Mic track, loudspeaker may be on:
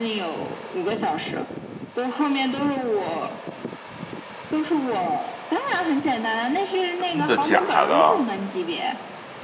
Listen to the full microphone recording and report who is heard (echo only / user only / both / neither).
both